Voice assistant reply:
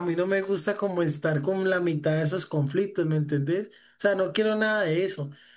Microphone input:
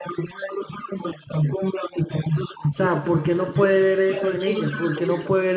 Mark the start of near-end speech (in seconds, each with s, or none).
2.7 s